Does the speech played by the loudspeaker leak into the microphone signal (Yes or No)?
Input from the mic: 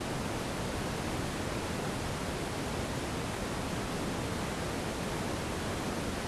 No